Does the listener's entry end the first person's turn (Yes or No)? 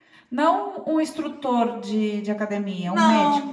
Yes